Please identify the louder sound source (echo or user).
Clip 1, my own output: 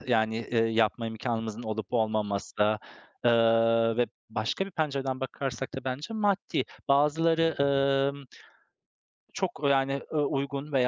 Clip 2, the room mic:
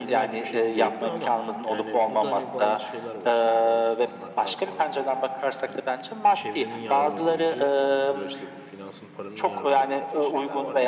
echo